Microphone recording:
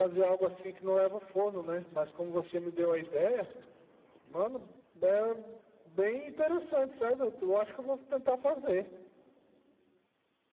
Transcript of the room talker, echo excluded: none

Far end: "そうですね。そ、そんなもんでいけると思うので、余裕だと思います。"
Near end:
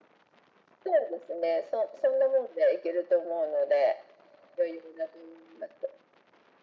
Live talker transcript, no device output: none

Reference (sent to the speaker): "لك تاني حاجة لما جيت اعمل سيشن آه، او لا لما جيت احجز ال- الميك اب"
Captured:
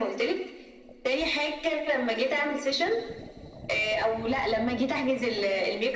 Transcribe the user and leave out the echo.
none

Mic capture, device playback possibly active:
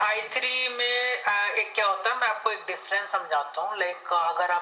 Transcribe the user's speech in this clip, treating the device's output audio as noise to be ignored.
none

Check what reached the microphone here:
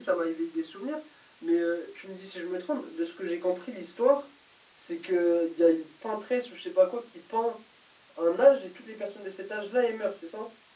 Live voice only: none

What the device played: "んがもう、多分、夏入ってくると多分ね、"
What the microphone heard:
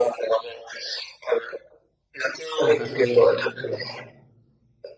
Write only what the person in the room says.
だからそういう意味で、うんう

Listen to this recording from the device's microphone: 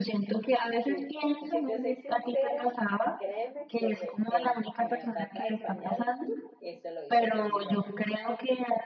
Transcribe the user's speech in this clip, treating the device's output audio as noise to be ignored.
sí. Si te soy sincera, créeme que el, en la tapa del pañal, eso lo hizo fue mi mamá.

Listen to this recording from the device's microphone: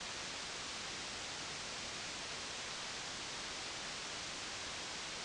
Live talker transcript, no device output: none

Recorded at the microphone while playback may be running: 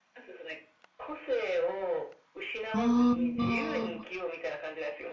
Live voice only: ああ、

